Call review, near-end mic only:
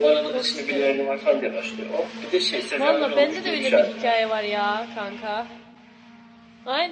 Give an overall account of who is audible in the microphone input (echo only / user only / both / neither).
both